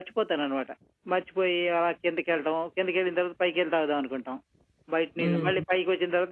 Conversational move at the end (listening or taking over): listening